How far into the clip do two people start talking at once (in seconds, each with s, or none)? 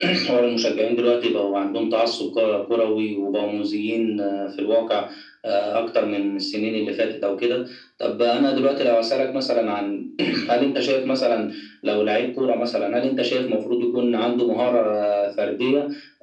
none